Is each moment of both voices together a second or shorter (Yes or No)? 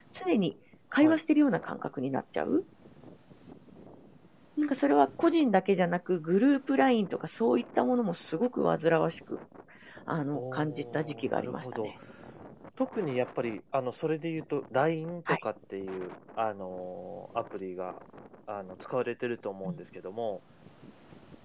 No